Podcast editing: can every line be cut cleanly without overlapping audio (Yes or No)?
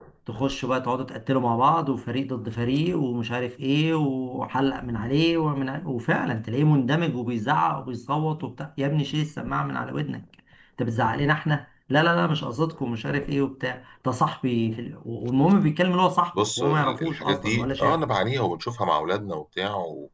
No